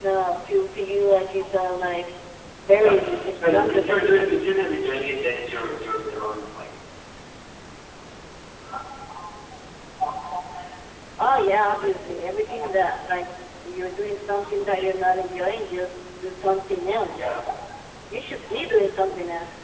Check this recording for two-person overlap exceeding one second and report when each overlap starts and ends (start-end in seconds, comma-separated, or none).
2.7-4.4